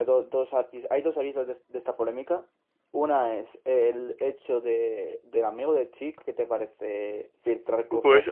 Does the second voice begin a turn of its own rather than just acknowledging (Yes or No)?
Yes